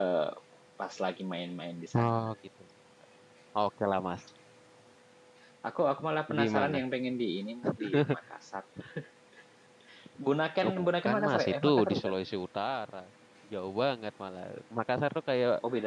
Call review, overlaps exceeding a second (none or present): present